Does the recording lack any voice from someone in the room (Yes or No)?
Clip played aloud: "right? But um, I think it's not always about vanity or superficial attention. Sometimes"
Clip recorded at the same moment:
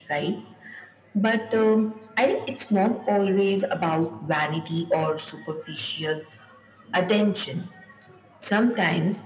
Yes